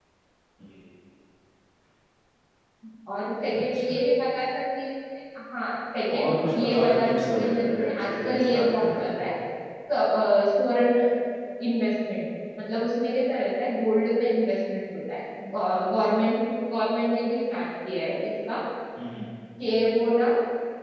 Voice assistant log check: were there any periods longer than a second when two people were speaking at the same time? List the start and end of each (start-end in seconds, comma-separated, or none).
6.1-9.2